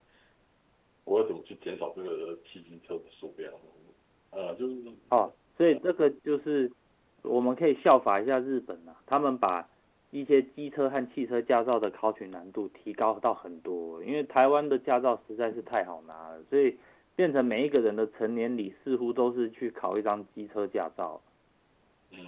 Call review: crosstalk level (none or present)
none